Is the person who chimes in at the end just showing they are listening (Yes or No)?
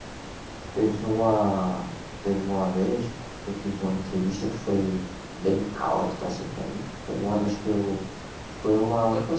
Yes